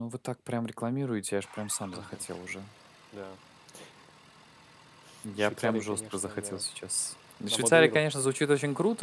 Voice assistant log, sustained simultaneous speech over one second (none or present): present